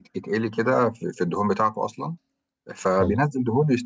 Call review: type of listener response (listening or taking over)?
listening